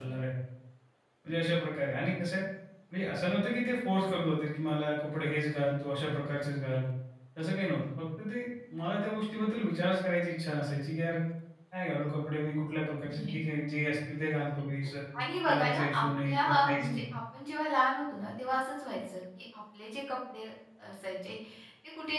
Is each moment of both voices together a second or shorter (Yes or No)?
No